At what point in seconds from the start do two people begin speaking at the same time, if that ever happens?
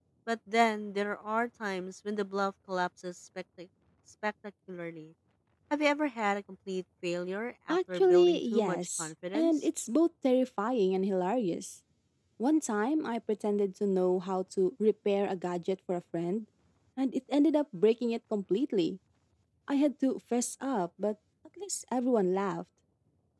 7.7 s

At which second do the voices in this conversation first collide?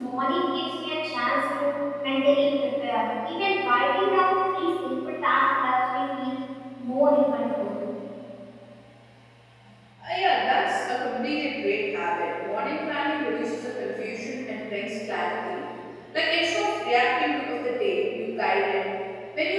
none

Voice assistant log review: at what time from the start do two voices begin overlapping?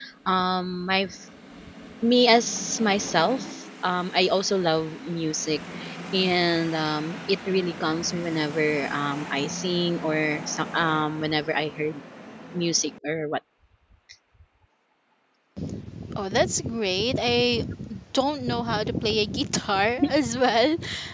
none

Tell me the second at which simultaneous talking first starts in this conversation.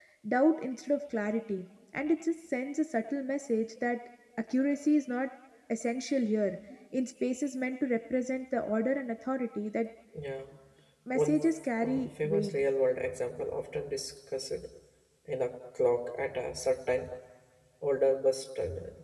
11.2 s

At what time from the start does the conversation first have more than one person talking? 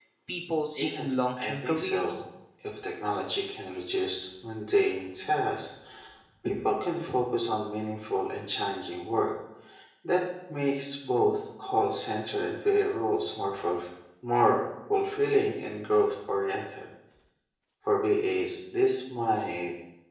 0.8 s

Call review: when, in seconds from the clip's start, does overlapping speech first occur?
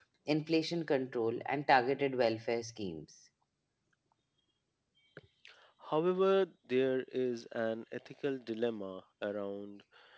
none

